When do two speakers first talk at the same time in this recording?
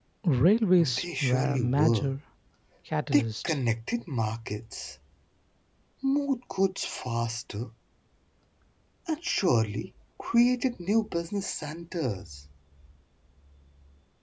0.8 s

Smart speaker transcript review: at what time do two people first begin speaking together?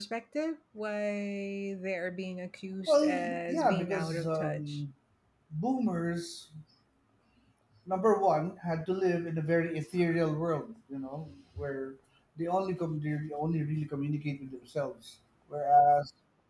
2.9 s

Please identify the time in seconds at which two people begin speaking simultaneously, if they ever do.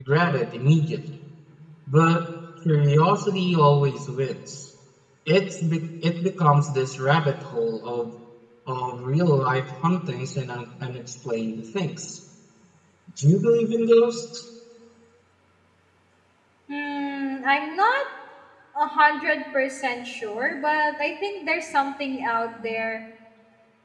none

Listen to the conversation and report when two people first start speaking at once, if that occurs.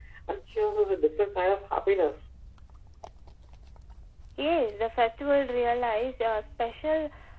none

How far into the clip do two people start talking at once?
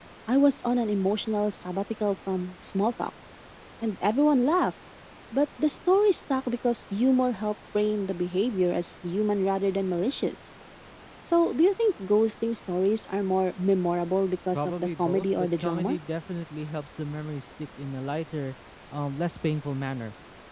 14.5 s

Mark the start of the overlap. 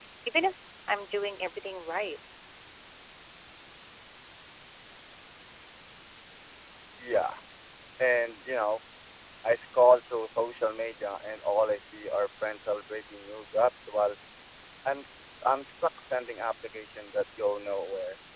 none

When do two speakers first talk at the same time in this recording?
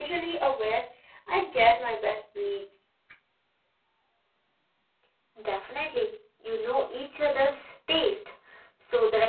none

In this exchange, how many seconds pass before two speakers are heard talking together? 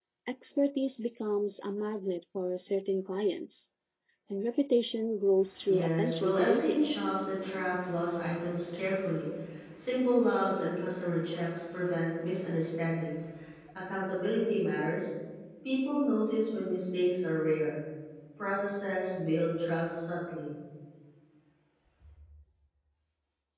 5.7 s

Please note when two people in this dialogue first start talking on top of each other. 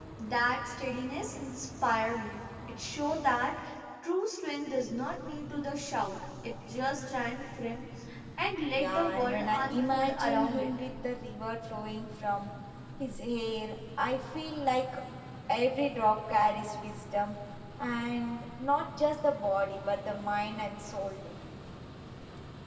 8.7 s

